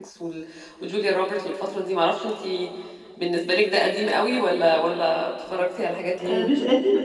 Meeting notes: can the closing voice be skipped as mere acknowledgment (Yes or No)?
No